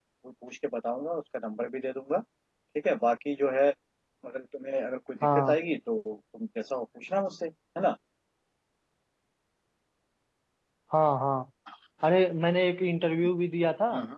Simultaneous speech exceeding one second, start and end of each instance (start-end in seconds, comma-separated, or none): none